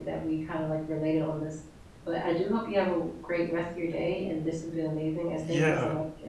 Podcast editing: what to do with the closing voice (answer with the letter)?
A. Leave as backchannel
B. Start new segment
B